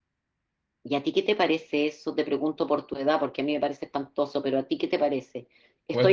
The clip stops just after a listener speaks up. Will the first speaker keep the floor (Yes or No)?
Yes